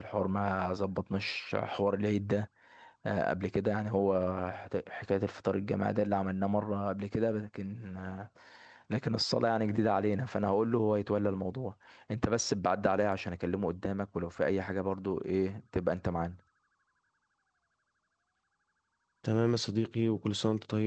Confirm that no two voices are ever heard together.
Yes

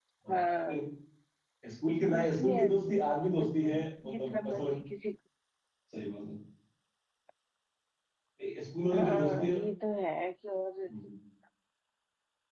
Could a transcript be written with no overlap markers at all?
No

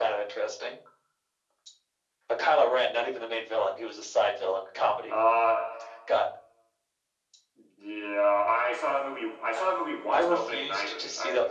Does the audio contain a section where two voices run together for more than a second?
Yes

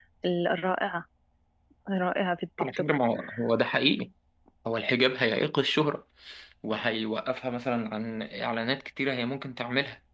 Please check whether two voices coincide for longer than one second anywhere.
No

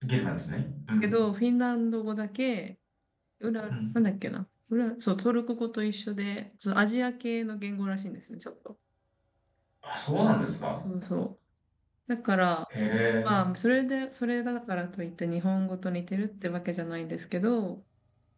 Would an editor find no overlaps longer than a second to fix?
Yes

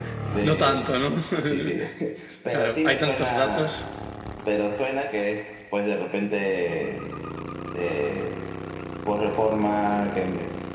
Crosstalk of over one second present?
Yes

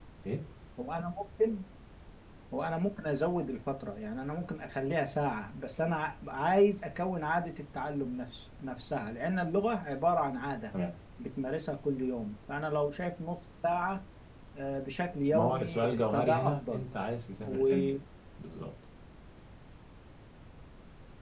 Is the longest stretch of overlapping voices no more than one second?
No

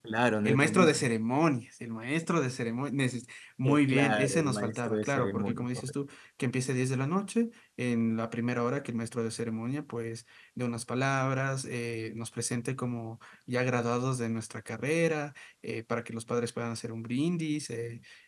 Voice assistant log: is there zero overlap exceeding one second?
No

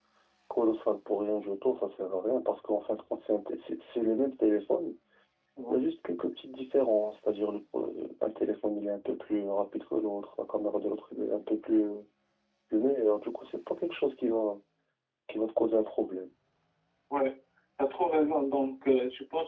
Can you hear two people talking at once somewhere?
No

